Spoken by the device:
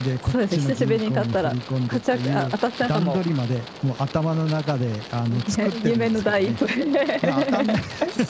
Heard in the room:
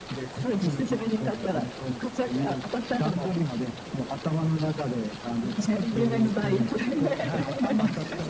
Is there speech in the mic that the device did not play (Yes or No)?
Yes